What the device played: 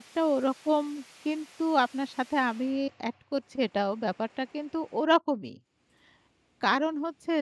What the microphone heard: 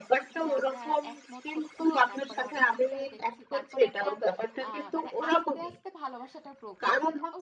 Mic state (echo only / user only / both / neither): both